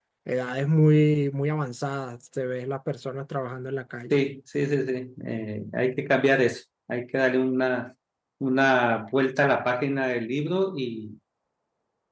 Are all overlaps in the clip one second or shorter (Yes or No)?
Yes